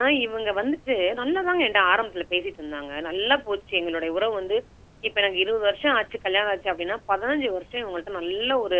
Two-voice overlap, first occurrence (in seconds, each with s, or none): none